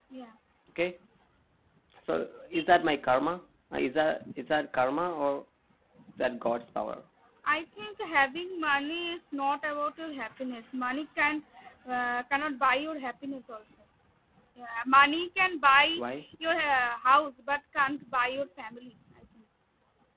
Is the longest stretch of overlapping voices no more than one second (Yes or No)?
Yes